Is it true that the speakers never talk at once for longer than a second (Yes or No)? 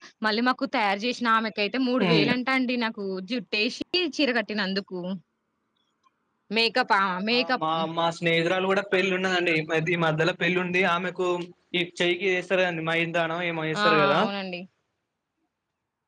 Yes